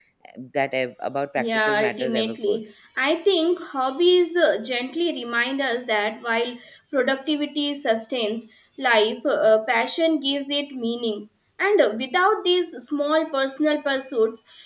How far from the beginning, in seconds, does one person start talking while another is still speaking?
1.4 s

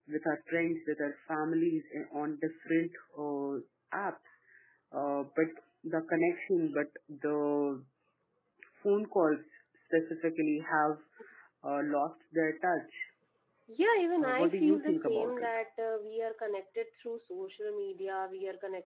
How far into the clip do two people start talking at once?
14.2 s

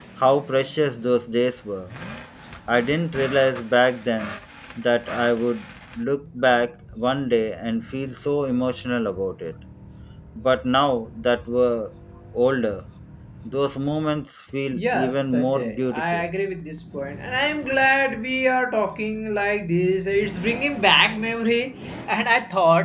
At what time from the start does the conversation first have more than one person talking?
14.7 s

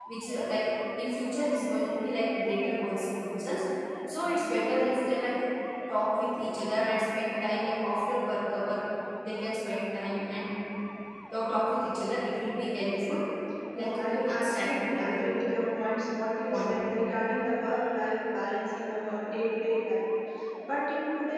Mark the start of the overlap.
13.8 s

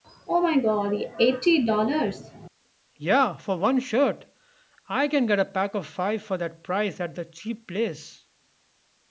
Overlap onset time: none

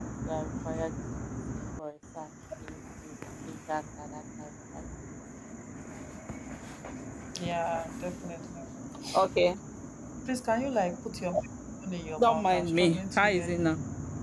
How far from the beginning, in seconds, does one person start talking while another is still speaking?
12.1 s

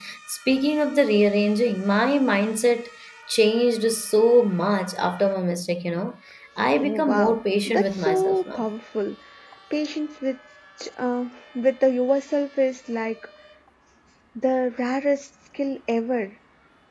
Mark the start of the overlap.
6.8 s

